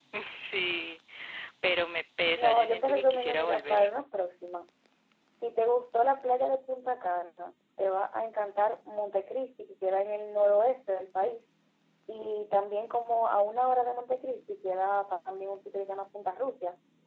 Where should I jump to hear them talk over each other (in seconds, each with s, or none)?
2.4 s